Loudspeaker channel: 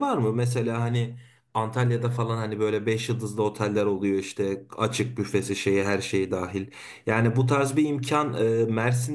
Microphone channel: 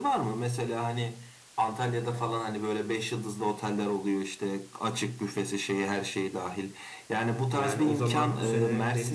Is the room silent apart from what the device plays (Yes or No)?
No